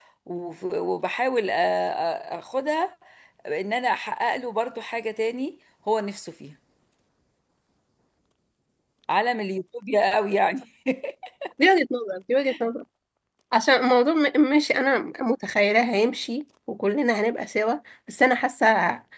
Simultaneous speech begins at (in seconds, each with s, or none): none